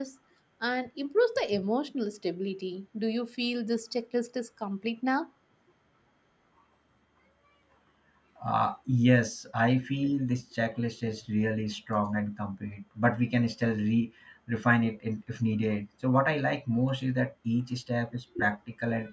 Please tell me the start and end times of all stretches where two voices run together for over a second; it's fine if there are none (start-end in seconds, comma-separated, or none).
none